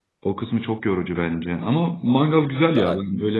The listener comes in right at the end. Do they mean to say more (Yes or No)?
No